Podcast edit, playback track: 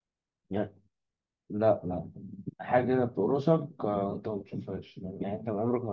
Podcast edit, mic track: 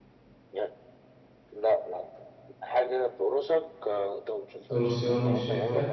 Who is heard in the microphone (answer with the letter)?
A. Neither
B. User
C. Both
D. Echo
C